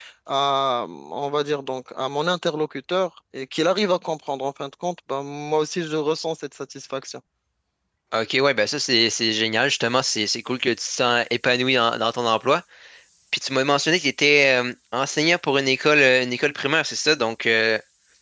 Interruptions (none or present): none